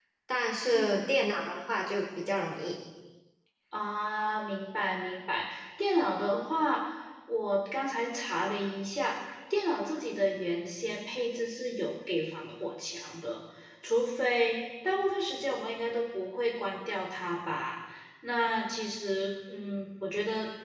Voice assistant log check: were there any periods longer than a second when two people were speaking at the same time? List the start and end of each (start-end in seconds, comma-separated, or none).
none